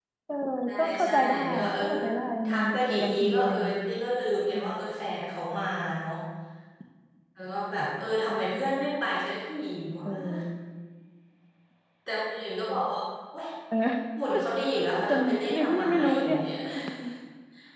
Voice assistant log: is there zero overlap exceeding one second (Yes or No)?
No